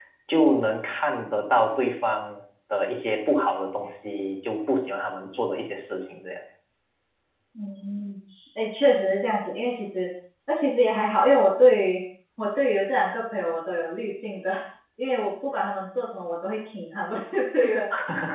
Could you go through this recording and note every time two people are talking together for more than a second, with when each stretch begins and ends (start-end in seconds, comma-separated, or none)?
none